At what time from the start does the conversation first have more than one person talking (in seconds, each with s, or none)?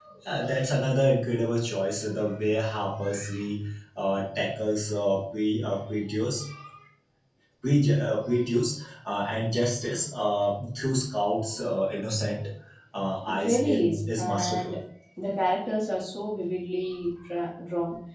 13.2 s